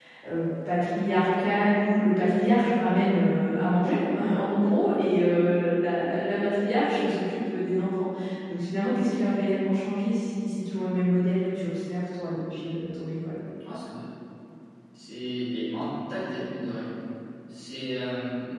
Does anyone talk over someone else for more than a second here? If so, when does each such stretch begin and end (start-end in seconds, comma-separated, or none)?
none